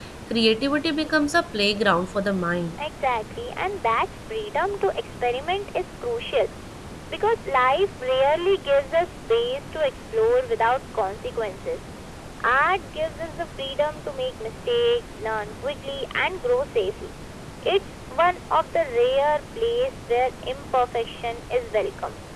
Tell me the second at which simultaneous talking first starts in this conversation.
none

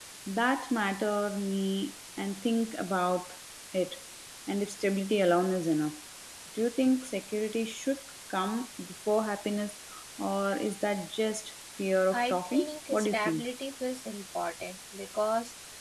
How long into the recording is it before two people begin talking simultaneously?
12 s

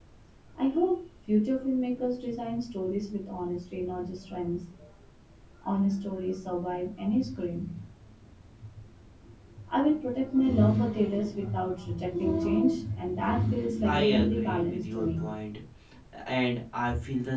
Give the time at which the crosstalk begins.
14 s

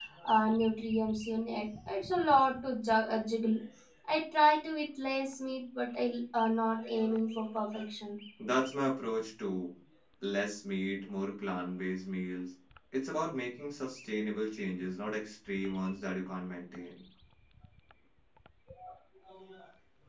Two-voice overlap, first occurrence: none

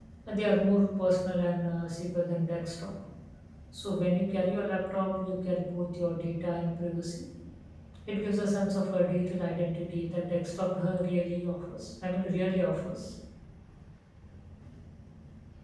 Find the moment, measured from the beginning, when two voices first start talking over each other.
none

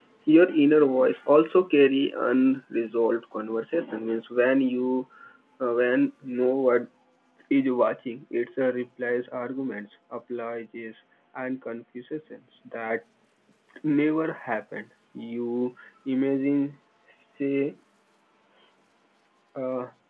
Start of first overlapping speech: none

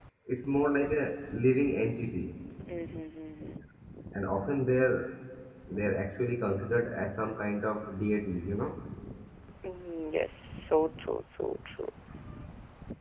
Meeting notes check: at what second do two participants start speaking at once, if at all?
none

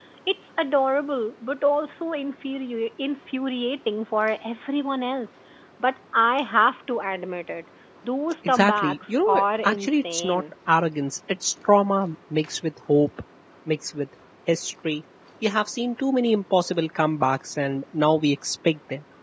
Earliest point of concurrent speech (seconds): 8 s

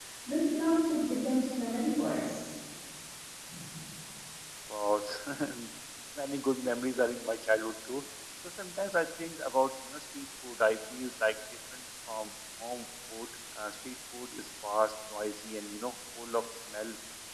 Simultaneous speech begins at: none

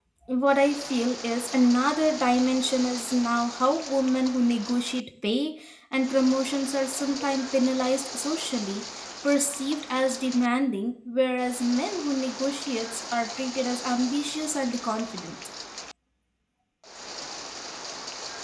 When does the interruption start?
none

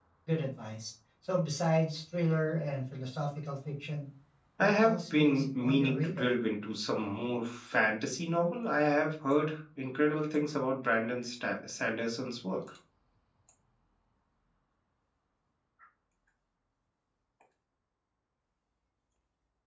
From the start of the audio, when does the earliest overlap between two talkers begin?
5 s

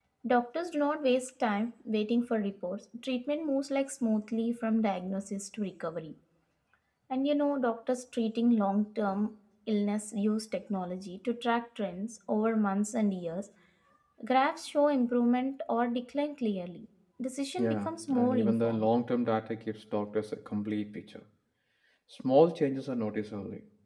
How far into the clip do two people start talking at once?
18 s

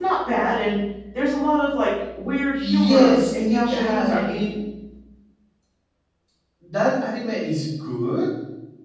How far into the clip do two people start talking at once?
3 s

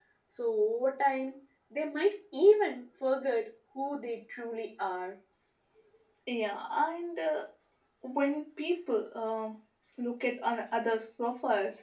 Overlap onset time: none

